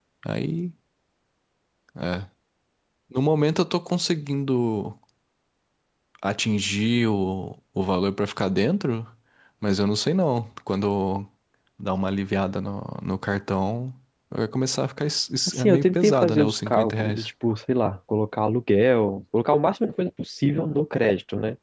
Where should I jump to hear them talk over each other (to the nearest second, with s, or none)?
15 s